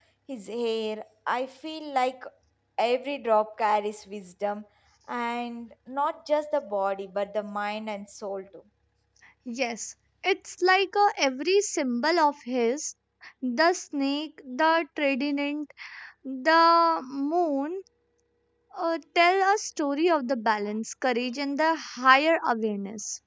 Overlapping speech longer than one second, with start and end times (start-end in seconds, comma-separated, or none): none